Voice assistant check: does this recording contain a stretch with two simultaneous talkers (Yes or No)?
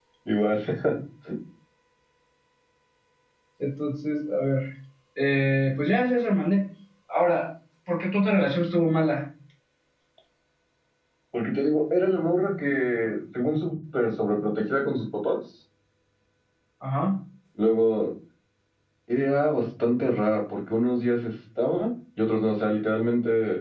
No